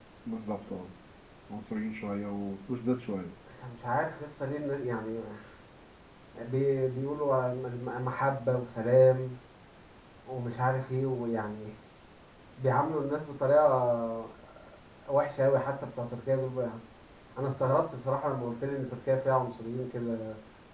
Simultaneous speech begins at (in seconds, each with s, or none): none